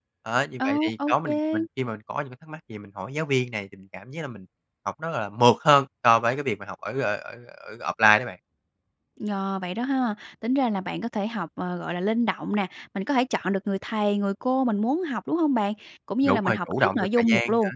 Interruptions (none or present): present